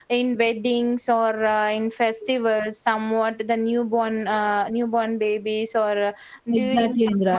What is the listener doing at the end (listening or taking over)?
taking over